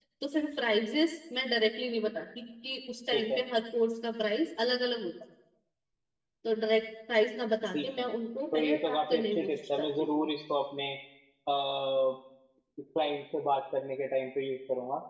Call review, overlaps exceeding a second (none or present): present